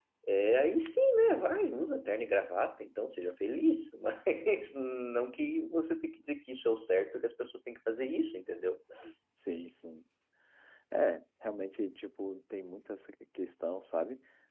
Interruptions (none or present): none